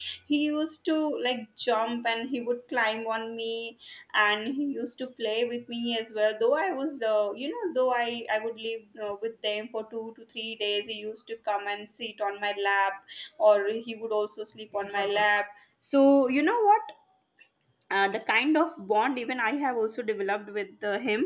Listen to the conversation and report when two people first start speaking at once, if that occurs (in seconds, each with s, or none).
none